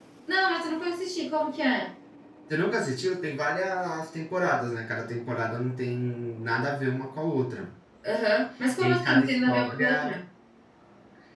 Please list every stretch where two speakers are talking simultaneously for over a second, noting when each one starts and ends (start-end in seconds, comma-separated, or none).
8.8-10.2